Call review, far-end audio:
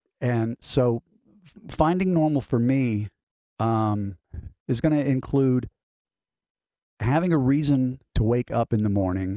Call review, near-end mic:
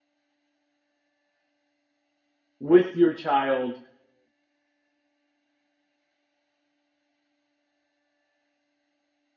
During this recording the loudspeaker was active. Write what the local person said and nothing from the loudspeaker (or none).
with your child